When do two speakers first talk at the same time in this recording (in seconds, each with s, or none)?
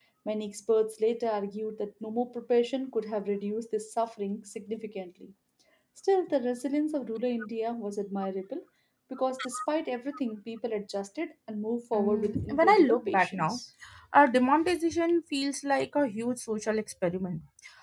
11.9 s